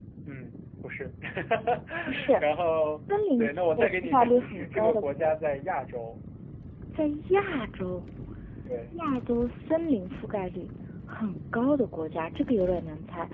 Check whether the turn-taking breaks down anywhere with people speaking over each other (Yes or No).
Yes